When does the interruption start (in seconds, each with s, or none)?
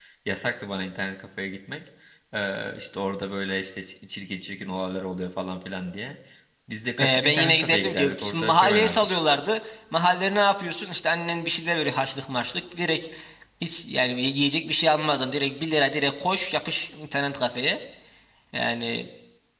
7.0 s